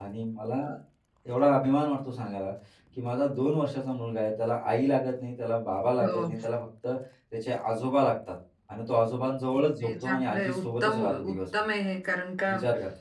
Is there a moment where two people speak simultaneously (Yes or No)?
Yes